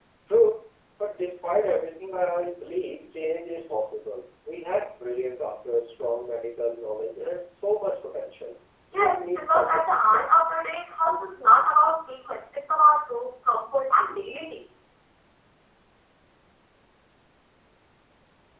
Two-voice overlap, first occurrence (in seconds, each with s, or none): 8.9 s